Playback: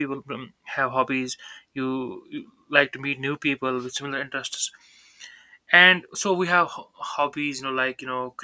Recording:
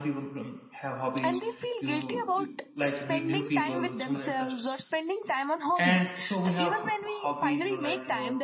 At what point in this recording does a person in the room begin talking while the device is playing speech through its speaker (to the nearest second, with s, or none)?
1 s